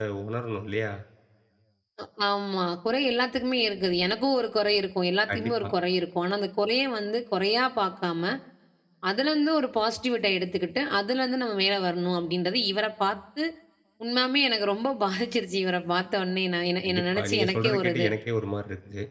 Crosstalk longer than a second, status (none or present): present